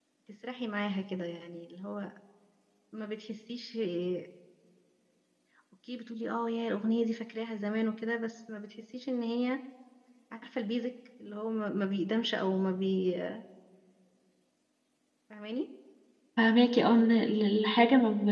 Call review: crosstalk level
none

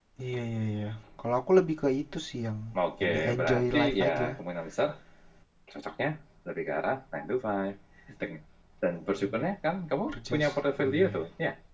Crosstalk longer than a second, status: present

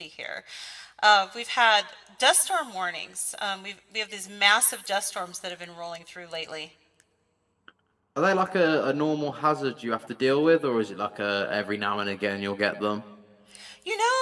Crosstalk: none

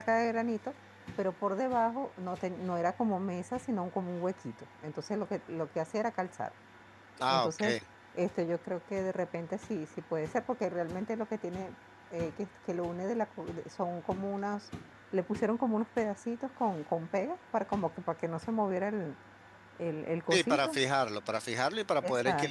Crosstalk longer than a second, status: none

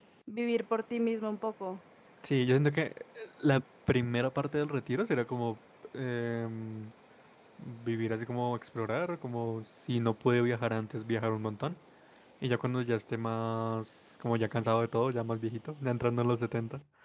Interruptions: none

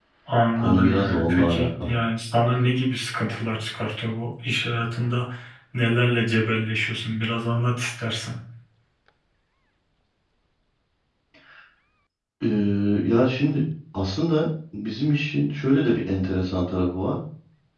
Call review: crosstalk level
present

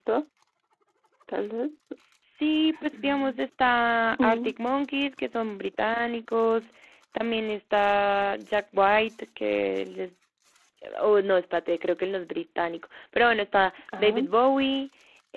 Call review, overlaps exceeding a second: none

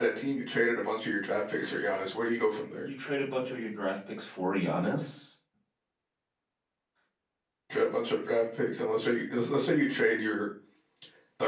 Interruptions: none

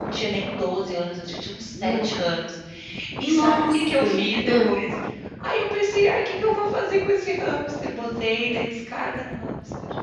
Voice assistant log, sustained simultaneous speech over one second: present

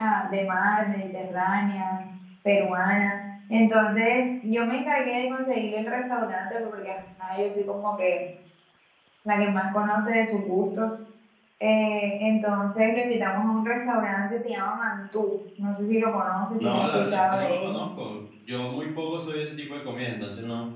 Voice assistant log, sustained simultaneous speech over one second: present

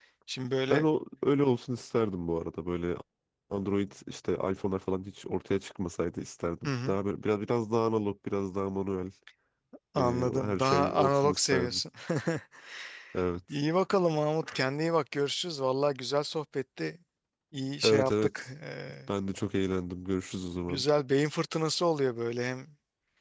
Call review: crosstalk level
present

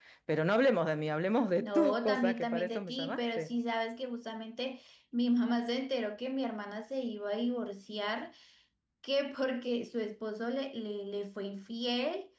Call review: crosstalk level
present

